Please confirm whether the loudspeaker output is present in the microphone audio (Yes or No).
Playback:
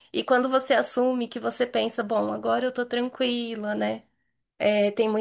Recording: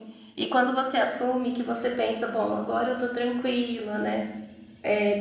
Yes